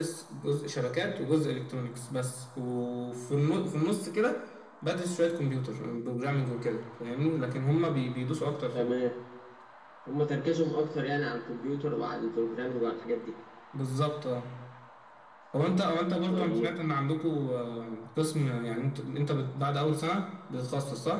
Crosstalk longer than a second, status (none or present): none